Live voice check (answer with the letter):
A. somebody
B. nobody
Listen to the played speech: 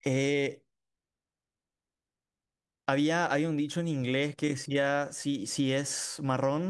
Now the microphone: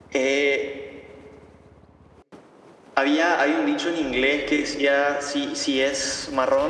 B